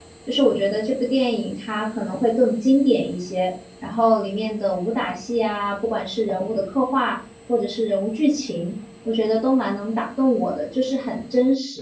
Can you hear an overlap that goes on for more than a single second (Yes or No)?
No